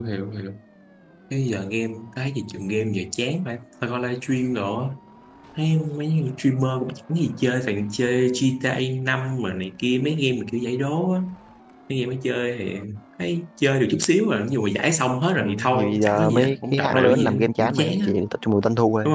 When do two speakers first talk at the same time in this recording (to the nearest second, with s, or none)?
15 s